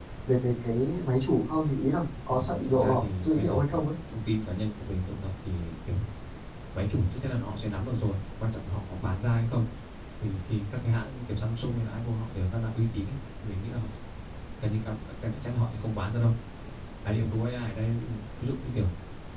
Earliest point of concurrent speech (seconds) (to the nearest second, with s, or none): 2 s